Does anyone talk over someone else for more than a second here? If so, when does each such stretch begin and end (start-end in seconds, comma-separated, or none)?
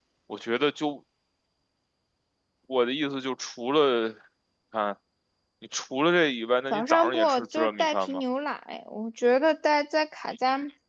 6.7-8.1